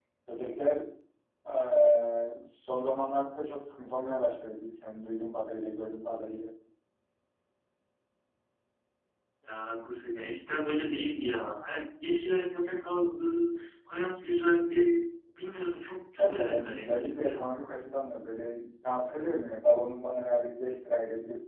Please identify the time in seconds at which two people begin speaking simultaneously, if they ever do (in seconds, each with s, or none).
16.2 s